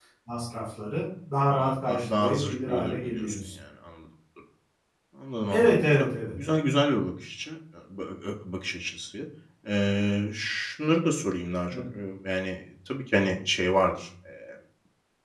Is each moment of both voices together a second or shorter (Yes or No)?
No